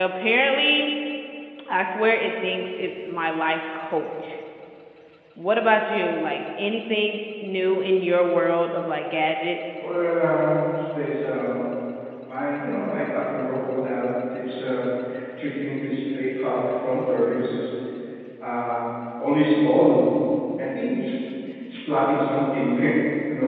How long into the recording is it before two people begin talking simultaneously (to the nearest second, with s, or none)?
none